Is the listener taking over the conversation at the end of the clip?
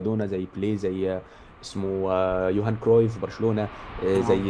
No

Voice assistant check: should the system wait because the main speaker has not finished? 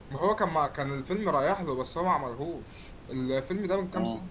Yes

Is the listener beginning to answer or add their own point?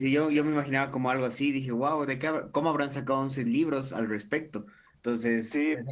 Yes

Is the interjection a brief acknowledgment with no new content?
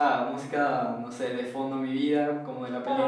No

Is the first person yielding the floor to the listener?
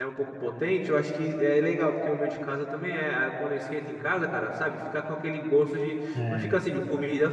No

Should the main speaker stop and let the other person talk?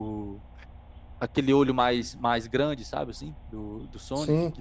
No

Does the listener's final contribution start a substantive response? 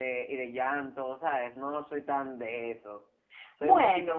No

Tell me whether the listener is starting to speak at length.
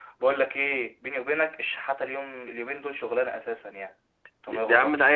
Yes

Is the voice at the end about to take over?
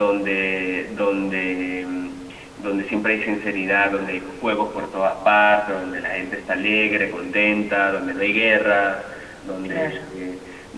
No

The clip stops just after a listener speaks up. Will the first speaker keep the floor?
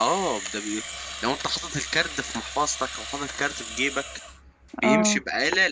Yes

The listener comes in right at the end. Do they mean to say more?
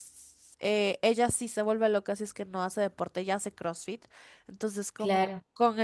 No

